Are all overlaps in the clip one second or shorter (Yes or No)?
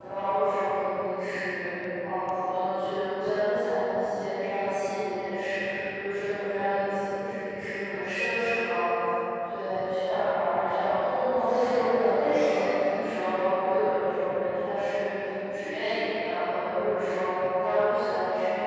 No